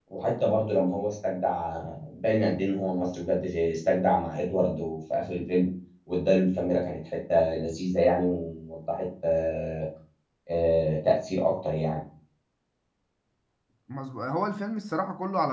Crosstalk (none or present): none